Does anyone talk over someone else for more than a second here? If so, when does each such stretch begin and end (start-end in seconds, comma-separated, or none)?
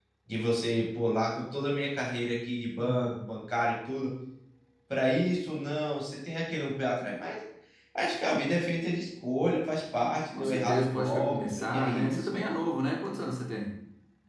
10.3-12.4